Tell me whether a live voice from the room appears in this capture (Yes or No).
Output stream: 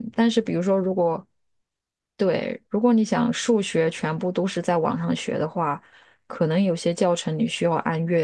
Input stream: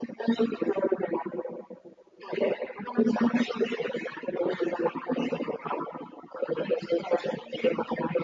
No